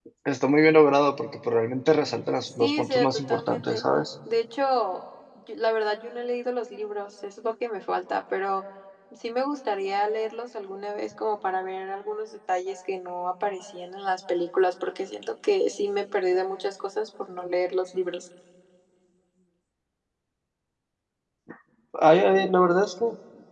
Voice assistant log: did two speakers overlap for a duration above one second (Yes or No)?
Yes